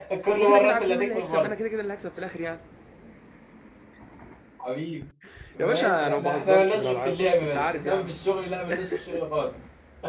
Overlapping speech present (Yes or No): Yes